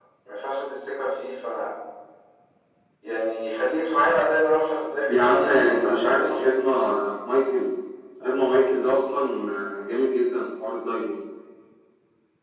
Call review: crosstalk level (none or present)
present